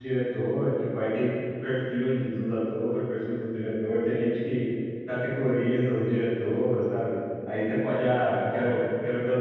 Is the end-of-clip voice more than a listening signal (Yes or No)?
No